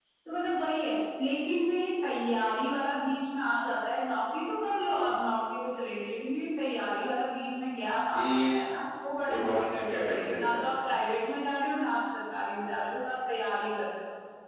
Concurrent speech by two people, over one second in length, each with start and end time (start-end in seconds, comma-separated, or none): 9.3-10.9